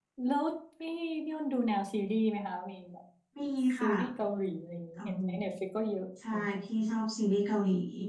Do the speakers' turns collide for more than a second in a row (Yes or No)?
No